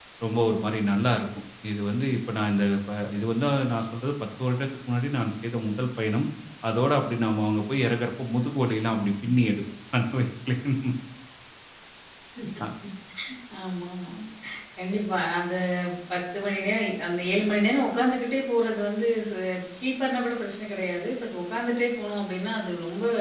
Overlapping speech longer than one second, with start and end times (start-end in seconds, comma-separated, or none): none